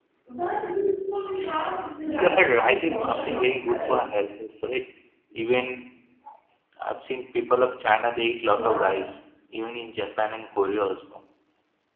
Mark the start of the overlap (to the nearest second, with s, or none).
2 s